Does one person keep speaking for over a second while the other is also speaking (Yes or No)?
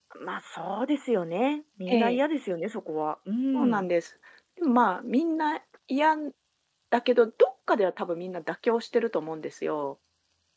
No